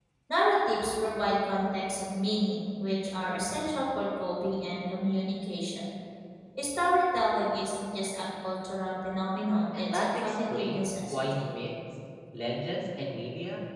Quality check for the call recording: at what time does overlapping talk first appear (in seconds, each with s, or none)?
9.7 s